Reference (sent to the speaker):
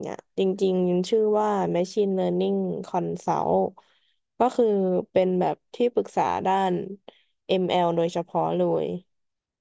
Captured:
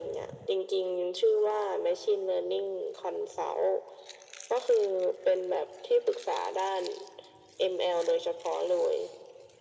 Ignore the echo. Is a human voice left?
No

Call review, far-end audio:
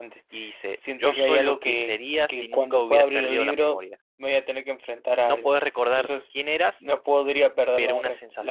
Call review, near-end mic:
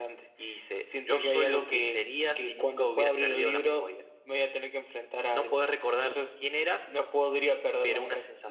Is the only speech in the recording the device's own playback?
Yes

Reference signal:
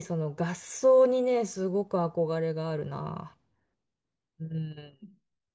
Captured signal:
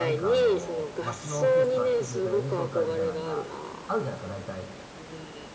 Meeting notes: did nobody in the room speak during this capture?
No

